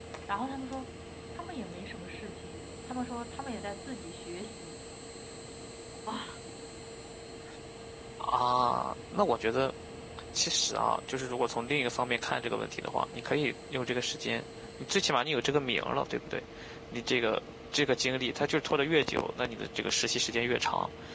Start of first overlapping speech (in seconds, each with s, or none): none